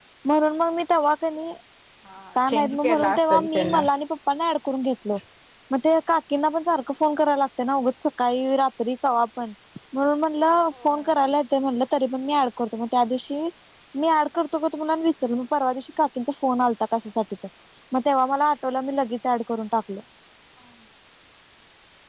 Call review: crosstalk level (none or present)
present